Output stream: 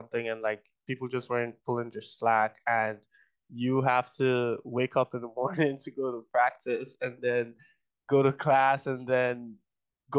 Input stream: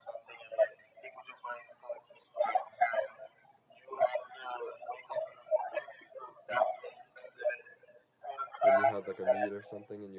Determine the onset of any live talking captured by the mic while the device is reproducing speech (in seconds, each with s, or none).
8.6 s